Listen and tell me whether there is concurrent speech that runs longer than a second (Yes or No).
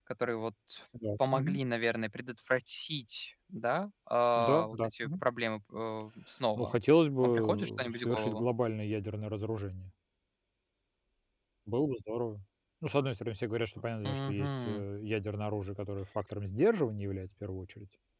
Yes